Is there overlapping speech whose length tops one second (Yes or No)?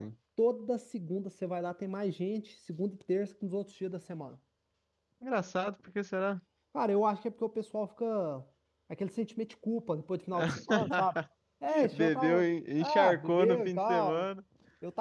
Yes